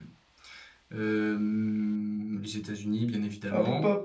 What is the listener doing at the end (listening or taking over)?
taking over